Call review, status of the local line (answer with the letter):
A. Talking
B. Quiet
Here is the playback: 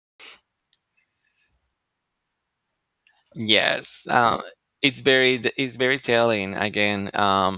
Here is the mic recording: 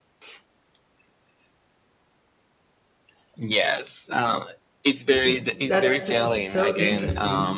A